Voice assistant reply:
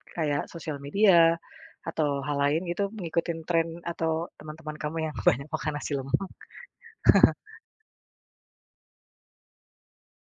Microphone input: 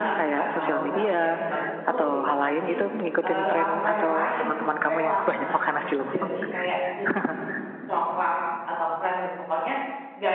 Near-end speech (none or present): present